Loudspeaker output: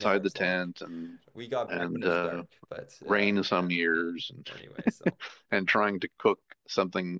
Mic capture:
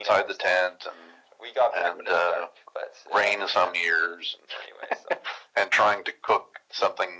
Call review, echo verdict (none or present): present